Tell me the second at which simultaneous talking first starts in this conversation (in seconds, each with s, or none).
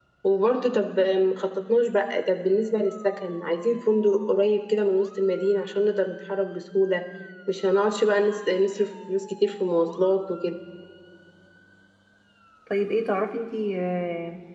none